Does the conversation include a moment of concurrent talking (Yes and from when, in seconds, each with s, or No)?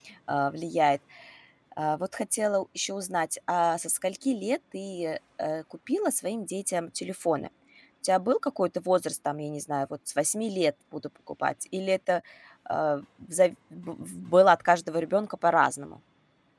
No